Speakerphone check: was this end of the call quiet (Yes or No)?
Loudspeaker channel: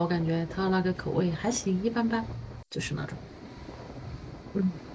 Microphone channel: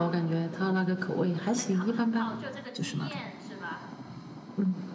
No